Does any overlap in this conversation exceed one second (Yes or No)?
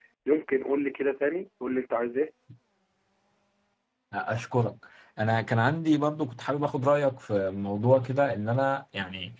No